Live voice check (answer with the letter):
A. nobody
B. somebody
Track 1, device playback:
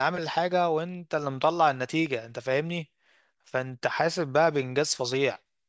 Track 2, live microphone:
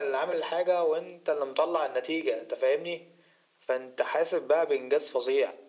A